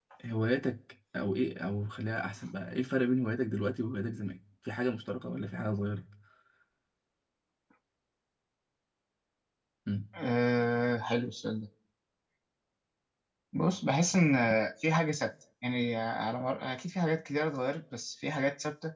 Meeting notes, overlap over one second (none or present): none